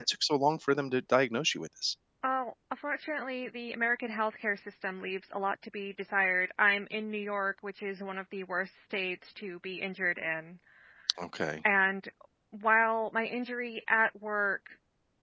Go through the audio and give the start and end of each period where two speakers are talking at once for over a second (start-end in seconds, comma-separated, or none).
none